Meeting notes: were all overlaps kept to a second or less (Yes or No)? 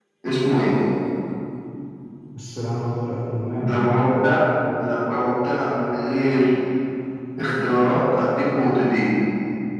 Yes